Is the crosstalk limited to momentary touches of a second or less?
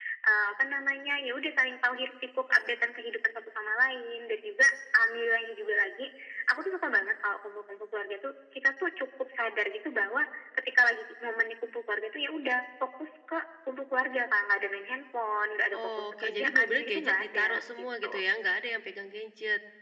No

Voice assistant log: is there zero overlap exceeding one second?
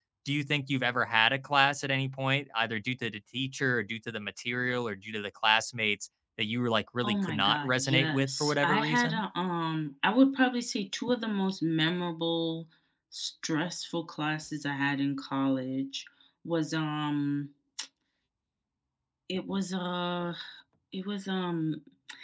No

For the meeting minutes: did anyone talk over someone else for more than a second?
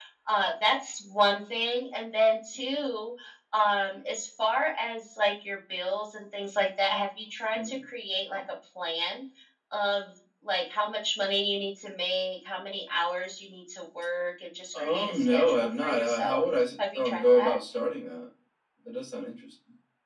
Yes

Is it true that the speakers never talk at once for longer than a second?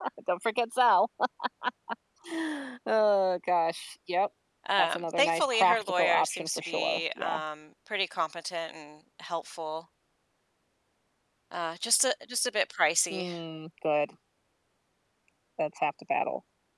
No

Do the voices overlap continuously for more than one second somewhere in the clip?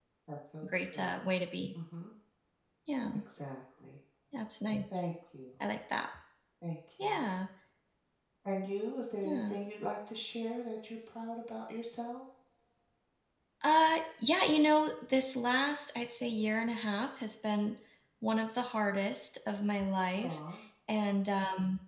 No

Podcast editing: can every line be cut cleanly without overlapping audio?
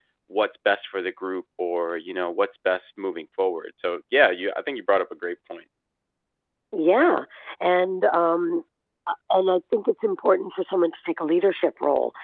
Yes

